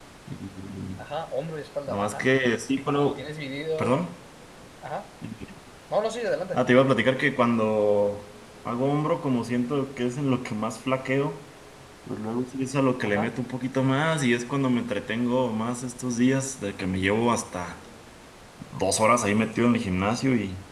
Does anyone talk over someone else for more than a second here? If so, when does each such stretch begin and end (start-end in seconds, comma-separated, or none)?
none